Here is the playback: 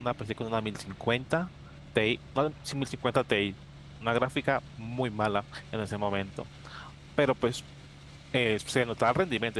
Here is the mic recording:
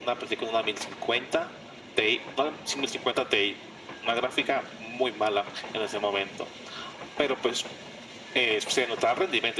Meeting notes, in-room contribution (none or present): none